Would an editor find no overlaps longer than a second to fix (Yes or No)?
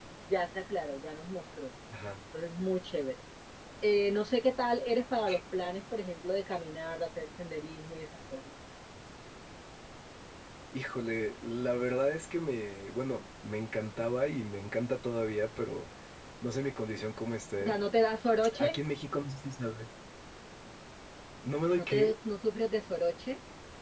Yes